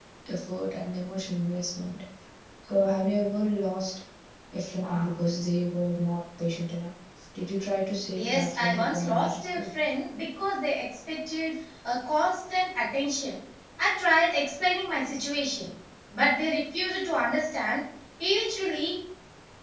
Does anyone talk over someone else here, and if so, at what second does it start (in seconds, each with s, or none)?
8.1 s